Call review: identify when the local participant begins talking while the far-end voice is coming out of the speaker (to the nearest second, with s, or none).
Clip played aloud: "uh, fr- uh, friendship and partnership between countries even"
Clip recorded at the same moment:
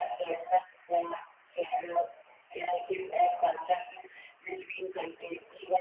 none